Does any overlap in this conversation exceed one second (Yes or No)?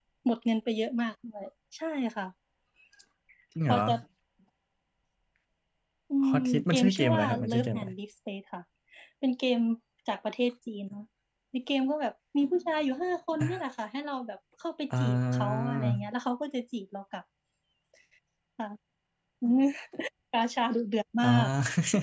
Yes